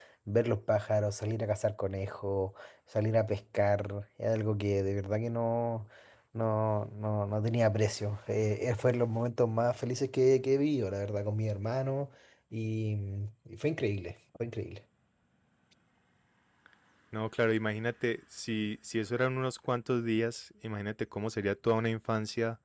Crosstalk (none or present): none